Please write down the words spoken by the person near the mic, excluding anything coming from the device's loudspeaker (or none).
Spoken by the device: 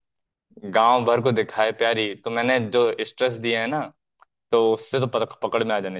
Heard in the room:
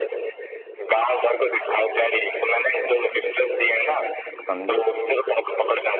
समझो